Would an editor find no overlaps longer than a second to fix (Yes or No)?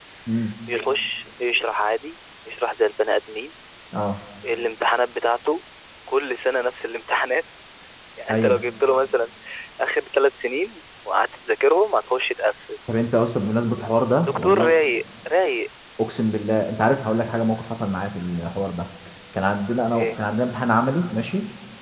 Yes